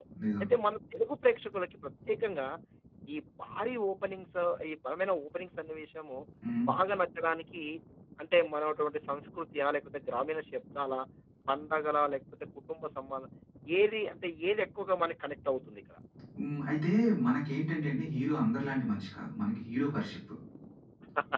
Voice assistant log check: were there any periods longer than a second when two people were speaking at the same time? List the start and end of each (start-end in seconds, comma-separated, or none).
none